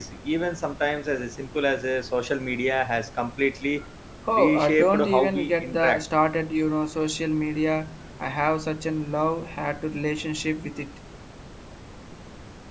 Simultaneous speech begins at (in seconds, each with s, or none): 4.3 s